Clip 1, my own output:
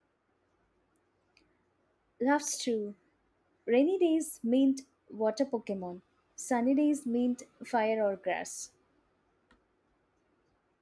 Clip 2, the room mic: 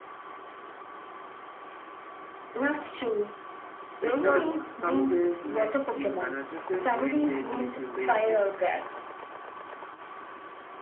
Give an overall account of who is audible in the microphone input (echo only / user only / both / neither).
both